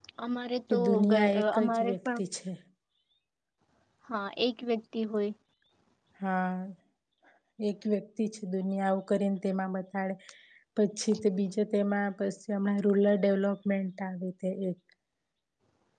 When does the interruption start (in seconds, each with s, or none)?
0.7 s